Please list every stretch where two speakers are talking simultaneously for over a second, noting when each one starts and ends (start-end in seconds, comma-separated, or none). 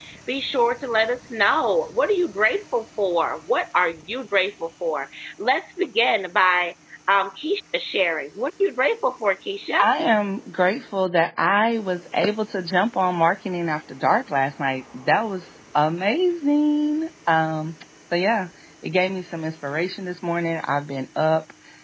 none